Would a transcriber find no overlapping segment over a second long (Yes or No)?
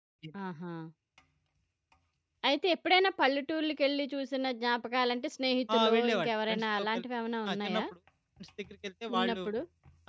No